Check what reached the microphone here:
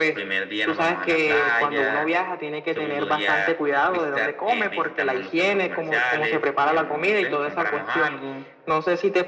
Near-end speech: none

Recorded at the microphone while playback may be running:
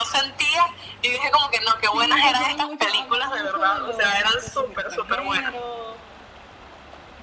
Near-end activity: present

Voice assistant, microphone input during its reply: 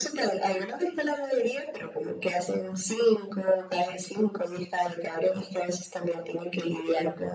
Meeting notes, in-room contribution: none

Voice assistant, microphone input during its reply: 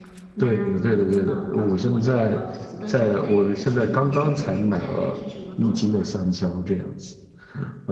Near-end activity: present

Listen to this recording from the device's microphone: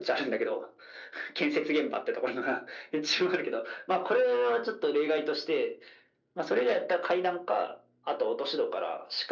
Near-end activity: none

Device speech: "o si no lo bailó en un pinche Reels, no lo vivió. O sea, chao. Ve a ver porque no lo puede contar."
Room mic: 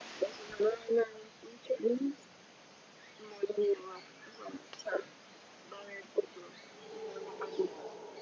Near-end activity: none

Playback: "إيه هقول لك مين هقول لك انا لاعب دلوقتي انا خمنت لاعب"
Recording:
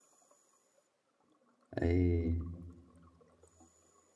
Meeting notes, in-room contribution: present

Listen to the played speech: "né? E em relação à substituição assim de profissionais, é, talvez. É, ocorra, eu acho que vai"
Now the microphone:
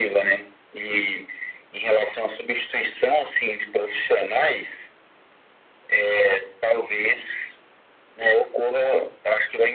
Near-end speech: none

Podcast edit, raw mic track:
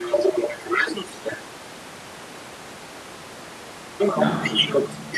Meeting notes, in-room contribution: present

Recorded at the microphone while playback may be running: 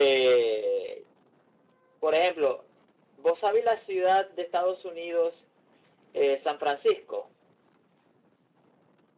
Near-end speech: none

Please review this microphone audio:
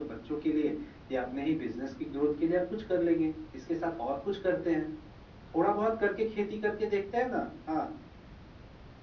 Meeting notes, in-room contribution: none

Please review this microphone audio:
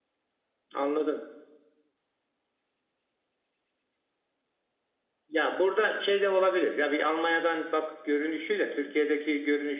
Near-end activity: present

